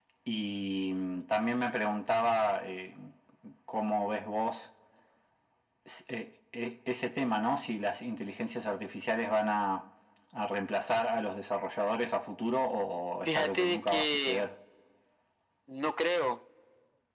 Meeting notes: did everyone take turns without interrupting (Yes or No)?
No